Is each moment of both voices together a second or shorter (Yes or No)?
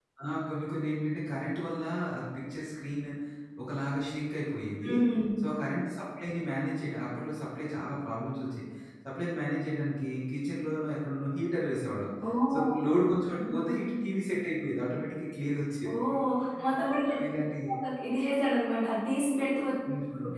Yes